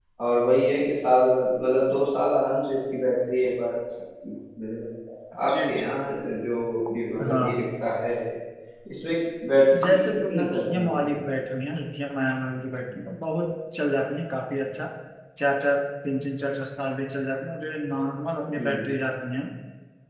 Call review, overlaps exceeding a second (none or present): present